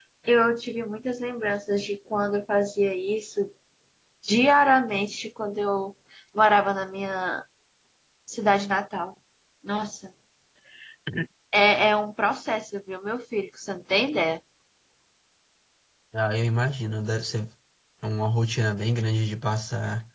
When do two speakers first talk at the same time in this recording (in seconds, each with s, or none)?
none